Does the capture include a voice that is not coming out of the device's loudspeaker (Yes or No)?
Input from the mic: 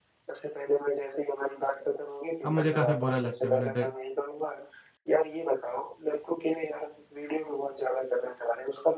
Yes